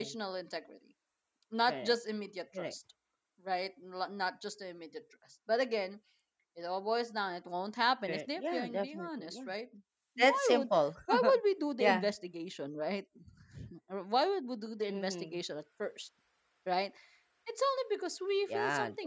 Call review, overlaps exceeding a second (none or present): present